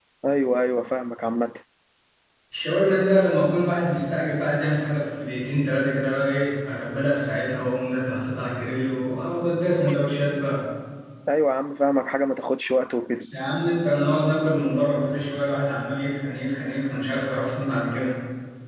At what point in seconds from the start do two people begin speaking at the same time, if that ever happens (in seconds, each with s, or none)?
none